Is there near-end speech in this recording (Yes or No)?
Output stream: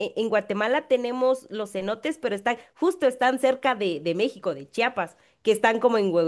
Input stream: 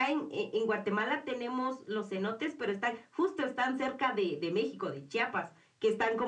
No